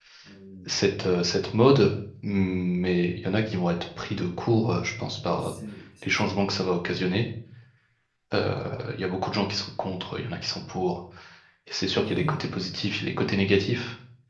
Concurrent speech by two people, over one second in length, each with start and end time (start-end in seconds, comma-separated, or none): none